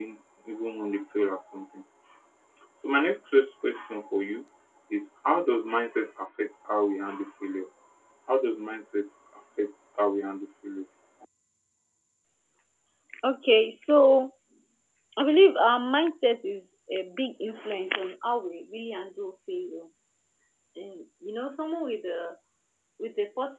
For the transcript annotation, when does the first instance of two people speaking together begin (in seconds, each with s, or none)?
none